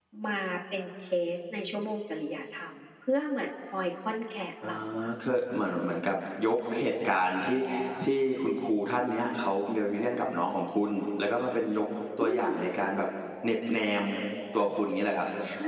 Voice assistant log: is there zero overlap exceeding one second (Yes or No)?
Yes